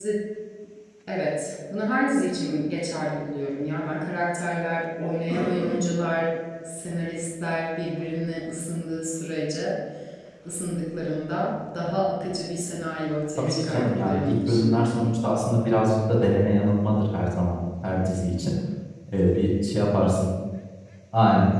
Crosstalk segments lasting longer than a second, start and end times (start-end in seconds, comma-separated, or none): 13.4-15.1